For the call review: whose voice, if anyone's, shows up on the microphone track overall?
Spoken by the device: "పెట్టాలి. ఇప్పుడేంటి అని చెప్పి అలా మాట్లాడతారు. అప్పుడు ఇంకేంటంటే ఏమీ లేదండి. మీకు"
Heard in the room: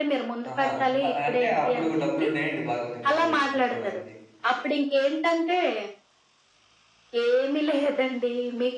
both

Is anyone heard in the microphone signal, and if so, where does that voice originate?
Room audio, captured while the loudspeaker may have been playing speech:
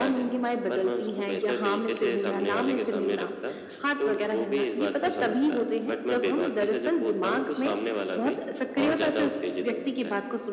echo only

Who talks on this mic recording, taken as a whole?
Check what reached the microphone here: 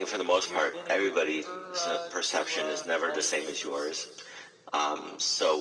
both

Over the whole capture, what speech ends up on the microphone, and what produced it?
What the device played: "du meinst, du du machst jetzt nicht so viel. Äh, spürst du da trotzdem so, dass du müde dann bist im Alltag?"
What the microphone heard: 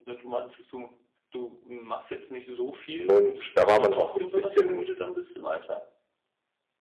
both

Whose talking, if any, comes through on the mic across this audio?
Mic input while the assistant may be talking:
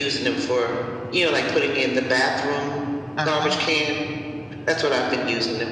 both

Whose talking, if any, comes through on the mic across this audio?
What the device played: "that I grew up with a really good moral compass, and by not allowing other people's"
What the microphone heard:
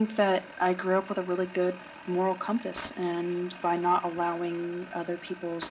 echo only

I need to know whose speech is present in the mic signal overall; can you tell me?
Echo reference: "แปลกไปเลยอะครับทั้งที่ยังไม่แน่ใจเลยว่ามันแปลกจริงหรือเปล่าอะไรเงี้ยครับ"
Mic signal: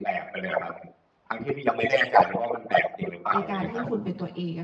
both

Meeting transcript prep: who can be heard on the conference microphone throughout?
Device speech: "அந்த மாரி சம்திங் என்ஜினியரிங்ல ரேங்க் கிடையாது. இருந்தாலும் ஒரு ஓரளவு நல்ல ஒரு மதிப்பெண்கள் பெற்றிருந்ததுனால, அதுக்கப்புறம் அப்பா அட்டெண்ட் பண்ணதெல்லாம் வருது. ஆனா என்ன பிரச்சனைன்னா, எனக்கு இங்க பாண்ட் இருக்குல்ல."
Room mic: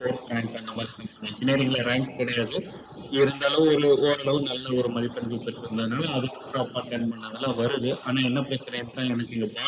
echo only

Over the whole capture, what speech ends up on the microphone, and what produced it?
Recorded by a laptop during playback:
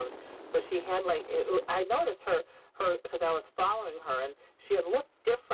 echo only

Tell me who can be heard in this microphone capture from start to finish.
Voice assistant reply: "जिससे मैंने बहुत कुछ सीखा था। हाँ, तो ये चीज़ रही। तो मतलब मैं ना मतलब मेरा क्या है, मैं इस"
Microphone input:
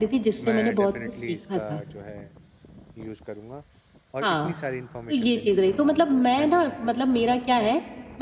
both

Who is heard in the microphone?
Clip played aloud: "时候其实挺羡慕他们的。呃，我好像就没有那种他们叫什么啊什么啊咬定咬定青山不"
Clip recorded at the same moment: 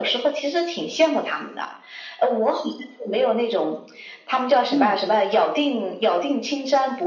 both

